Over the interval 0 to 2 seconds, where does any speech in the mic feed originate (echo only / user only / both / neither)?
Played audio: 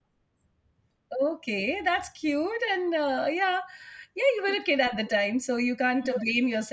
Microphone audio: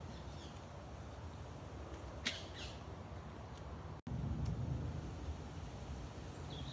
neither